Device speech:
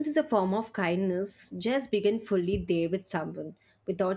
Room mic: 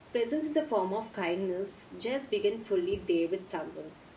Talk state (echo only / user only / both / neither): echo only